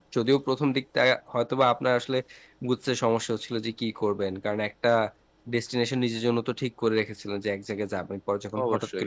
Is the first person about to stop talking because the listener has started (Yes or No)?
No